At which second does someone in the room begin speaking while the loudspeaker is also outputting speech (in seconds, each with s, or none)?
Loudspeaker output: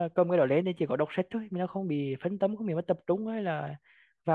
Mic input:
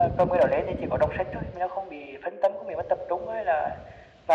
none